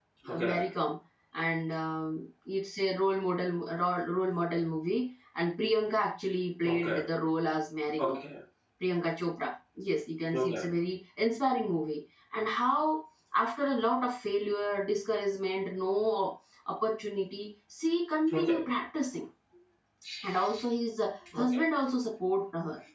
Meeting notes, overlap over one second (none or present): none